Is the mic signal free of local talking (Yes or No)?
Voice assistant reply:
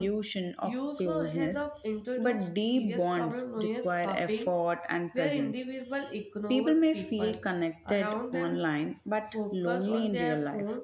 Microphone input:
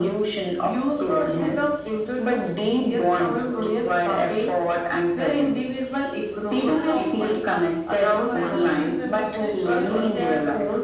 No